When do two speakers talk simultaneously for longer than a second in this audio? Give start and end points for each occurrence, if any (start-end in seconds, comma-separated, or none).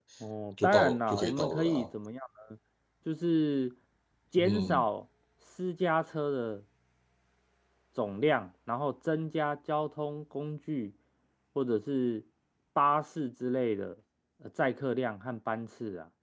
0.6-1.9